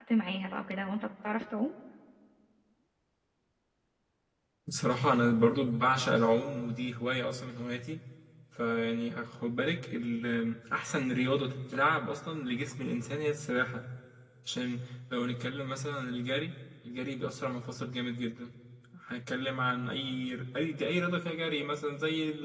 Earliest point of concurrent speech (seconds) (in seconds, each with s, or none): none